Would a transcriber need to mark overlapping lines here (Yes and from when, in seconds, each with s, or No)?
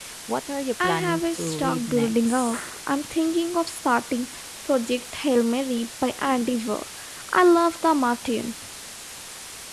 Yes, from 0.8 s